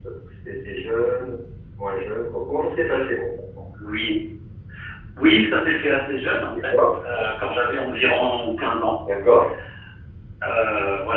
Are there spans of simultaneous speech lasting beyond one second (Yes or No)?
No